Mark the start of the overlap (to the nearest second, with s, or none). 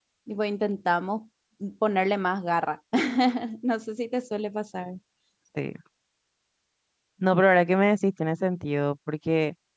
none